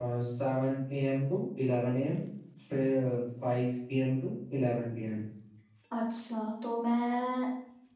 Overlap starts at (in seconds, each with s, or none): none